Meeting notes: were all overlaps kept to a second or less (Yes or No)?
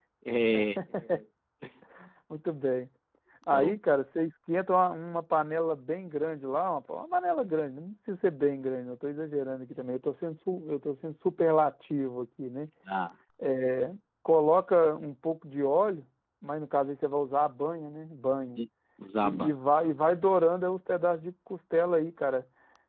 Yes